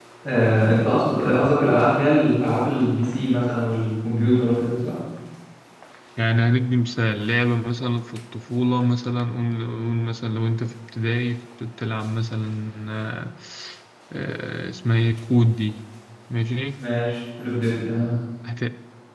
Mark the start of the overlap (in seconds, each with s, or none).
none